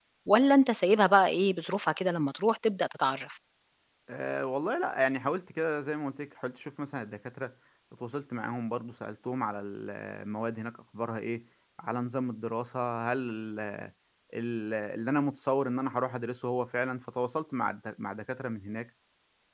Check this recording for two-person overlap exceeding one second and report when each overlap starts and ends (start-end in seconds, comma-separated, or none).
none